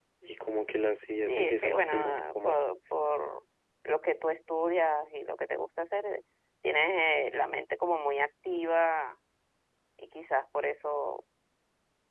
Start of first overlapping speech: 1.3 s

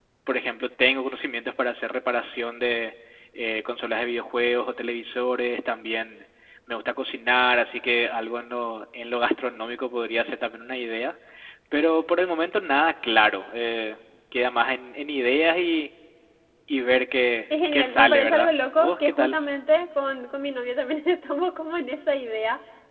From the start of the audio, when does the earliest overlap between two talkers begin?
17.5 s

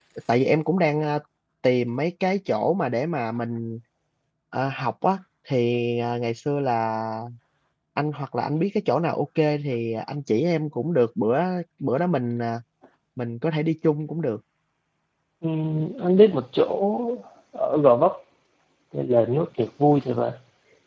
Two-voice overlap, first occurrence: none

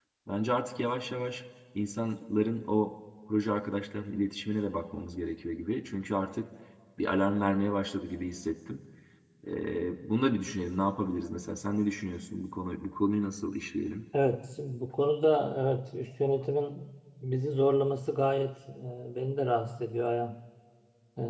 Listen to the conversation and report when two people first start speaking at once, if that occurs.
none

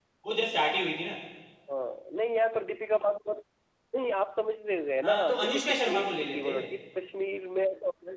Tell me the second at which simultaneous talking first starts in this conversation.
5.0 s

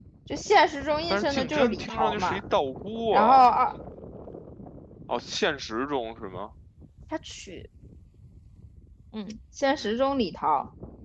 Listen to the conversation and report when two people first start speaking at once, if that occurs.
1.1 s

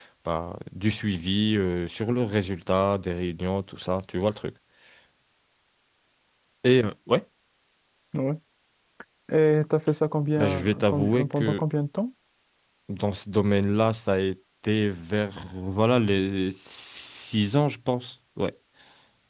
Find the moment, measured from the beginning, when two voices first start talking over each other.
10.4 s

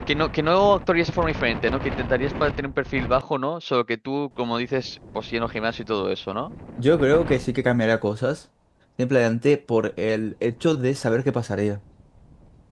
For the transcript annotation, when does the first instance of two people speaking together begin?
none

